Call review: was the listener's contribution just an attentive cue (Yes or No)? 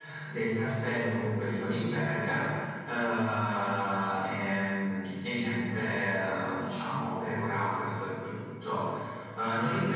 Yes